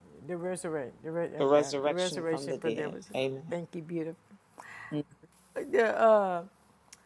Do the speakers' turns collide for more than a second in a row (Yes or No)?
Yes